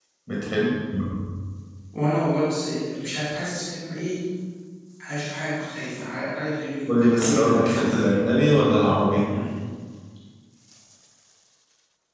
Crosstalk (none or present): present